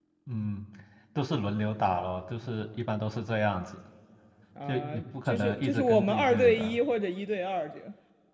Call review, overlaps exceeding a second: present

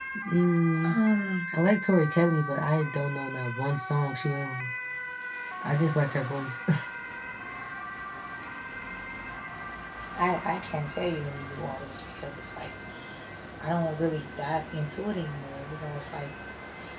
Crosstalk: none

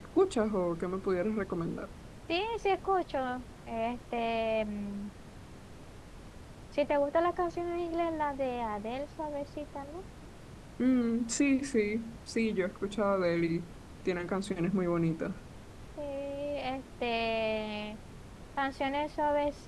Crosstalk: none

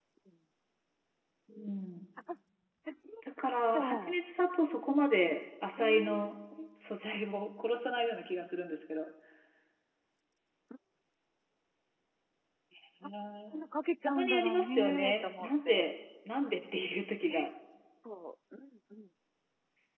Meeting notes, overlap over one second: present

